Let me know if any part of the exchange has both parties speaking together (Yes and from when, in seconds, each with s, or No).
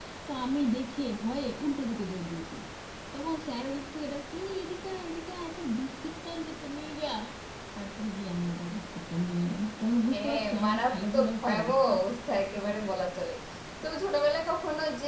Yes, from 10.1 s